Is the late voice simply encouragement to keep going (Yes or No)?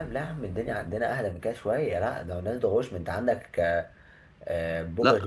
Yes